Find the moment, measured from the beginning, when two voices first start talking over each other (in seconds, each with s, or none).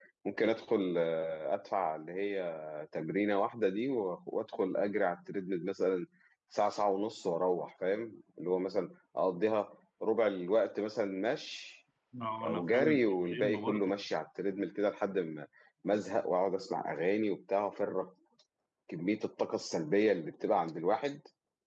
12.4 s